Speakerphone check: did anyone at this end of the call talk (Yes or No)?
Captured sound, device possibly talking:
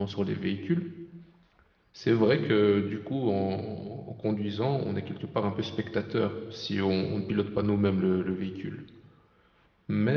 Yes